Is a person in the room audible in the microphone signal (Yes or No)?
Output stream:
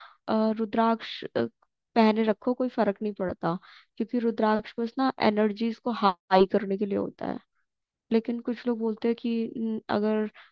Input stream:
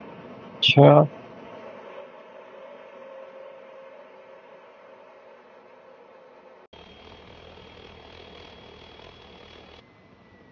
Yes